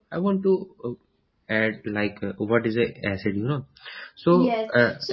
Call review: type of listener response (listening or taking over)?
taking over